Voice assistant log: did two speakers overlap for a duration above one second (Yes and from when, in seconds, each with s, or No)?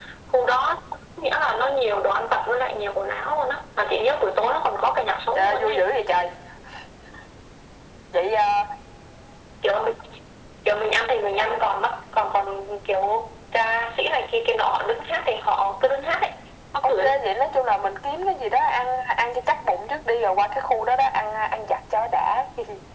No